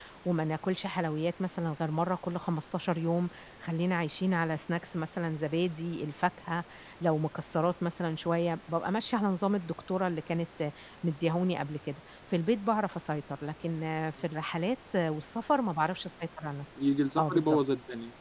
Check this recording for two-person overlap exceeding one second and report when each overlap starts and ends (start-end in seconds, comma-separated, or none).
none